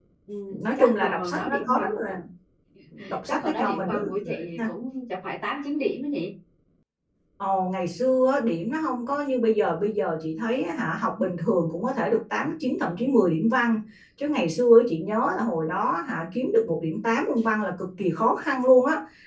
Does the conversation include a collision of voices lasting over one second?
Yes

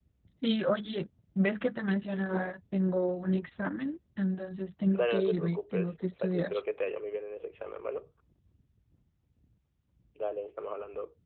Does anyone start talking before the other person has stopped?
Yes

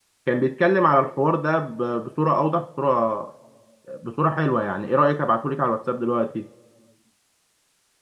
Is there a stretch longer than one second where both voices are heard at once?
No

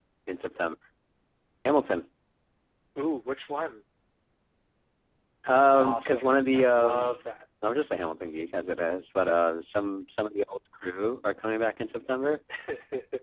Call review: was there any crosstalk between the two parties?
Yes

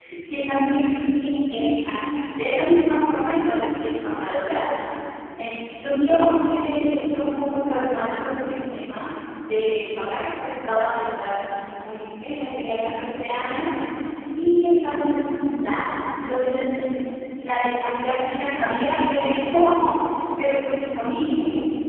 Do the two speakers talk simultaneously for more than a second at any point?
No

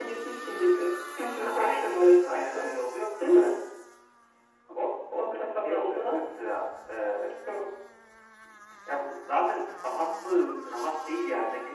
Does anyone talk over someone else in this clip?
Yes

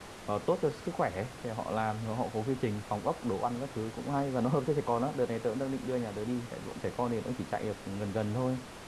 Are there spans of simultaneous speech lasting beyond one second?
No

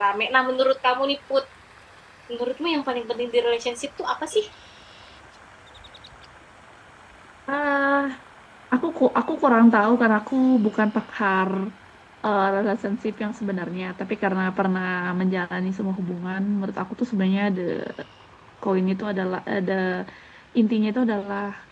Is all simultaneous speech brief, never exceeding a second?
Yes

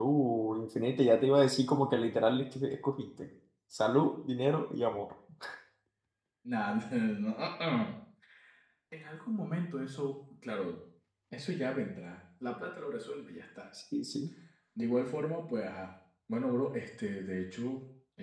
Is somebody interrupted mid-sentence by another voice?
No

